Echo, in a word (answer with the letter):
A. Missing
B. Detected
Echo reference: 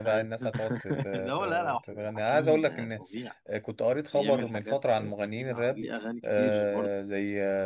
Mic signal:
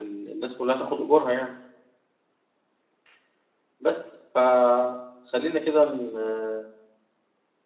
A